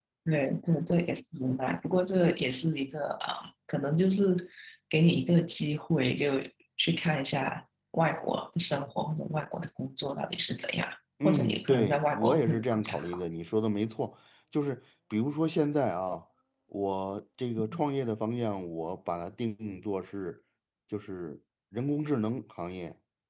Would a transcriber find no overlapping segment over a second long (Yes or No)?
No